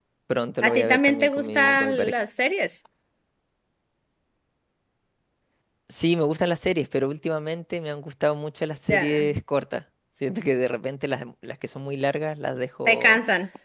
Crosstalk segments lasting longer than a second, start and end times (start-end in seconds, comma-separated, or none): 0.6-2.1